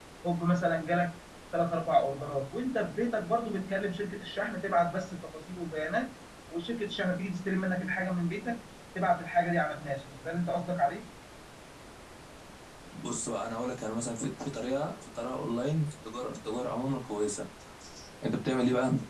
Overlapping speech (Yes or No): No